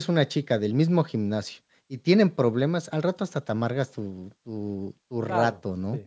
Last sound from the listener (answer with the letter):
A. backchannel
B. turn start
B